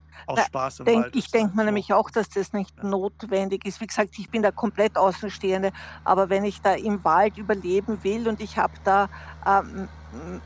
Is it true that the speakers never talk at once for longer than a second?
No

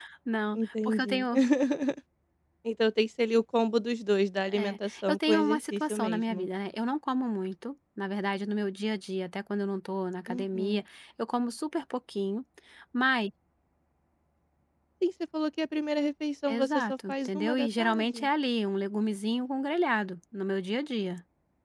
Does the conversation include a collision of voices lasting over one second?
Yes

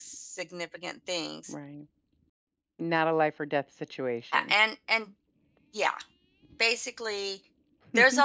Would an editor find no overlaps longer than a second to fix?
Yes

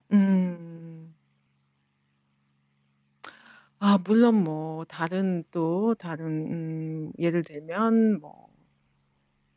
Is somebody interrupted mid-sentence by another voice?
No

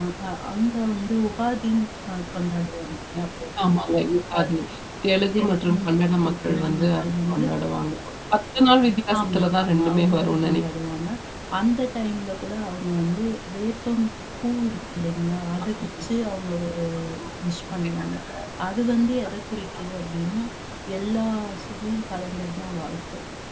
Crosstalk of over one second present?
Yes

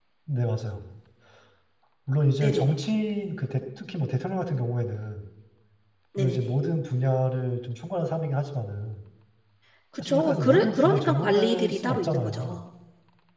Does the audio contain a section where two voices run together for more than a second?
Yes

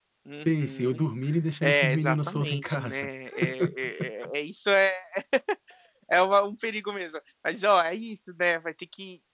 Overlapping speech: Yes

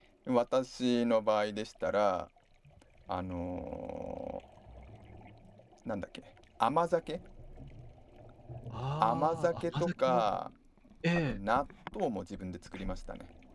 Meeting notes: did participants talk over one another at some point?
Yes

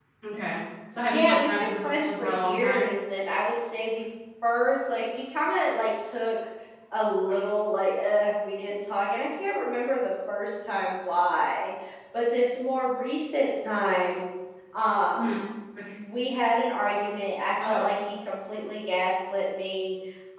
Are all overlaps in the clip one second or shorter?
No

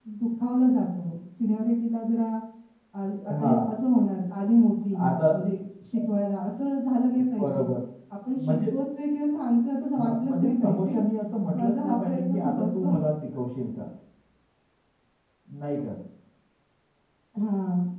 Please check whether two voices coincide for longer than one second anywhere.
Yes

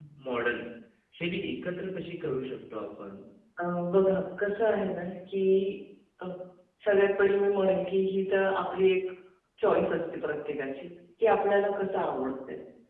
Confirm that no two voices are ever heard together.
Yes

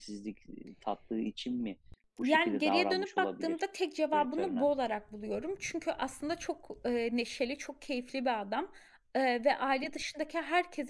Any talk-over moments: Yes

